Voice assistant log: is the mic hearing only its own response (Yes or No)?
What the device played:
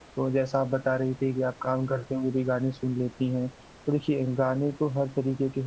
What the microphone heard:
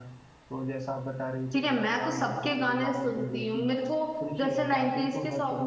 No